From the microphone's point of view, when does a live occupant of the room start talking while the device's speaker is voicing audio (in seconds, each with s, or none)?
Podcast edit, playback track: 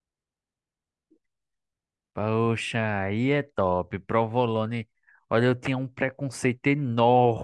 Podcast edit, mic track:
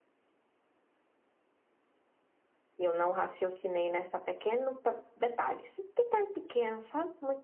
2.8 s